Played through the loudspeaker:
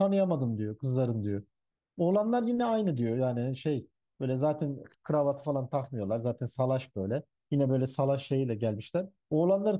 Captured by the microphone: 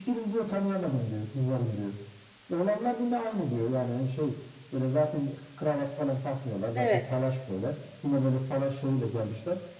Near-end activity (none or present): present